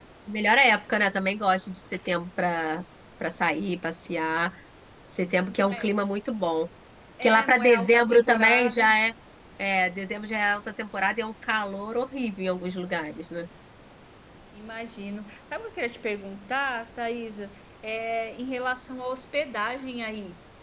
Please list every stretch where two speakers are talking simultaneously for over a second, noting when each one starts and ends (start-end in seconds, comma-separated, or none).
7.2-8.9